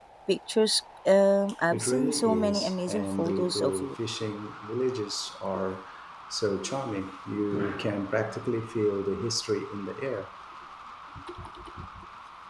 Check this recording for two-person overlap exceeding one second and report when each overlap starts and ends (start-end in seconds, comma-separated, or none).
1.7-3.9